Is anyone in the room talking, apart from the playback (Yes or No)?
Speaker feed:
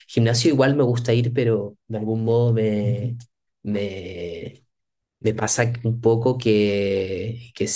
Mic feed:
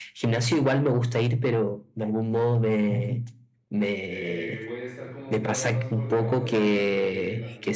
Yes